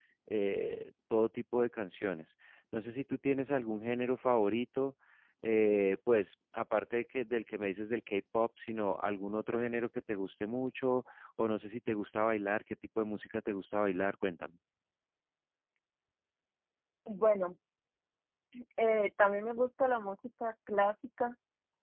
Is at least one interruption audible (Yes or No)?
No